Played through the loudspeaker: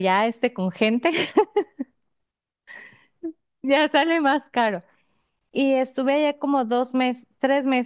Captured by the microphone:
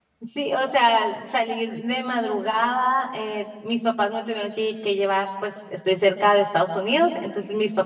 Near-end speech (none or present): present